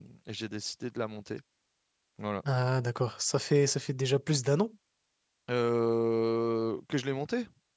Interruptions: none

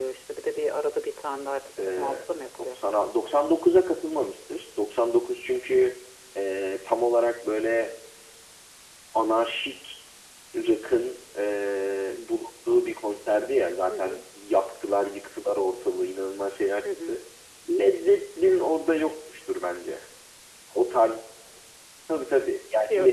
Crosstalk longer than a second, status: none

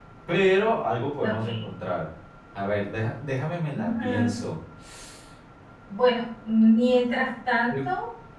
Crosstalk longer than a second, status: none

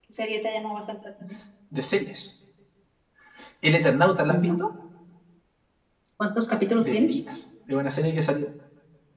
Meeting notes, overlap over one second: none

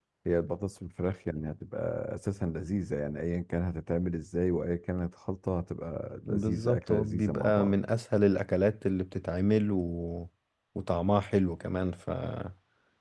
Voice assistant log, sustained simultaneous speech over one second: present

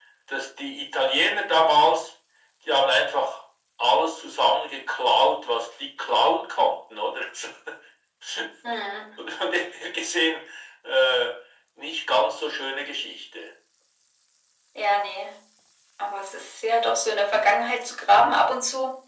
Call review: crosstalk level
none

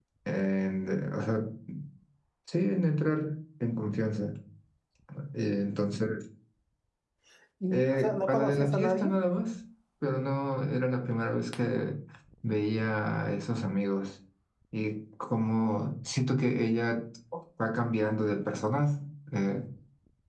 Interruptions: present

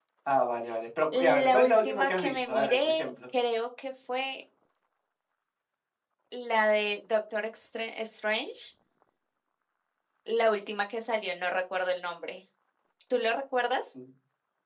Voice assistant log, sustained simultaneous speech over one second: present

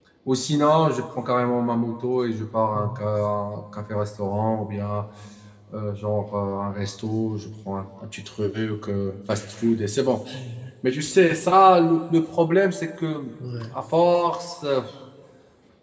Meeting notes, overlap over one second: none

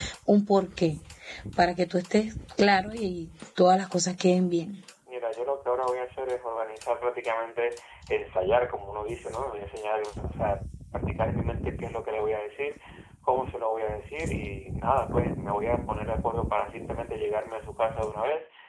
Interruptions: none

